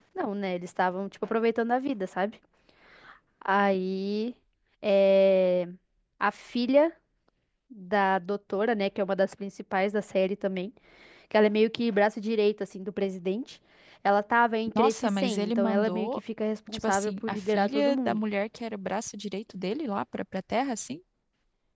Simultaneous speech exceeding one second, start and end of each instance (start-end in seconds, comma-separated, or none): 14.8-16.1, 16.7-18.2